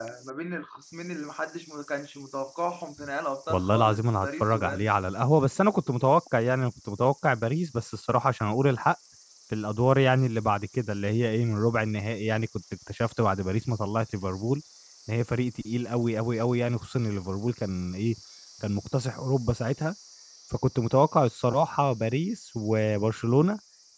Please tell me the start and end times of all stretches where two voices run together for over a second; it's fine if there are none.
3.5-4.9

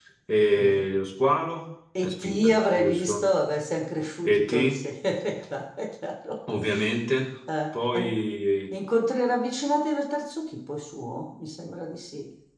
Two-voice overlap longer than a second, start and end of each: 2.0-3.2

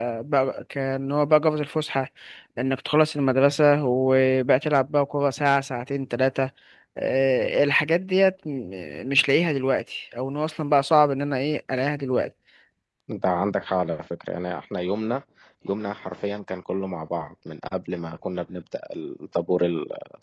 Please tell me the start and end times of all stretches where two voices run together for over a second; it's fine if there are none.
none

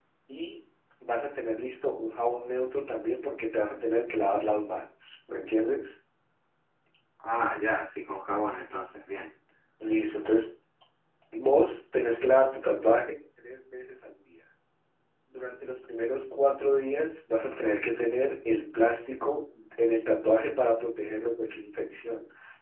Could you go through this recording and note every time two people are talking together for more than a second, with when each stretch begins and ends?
none

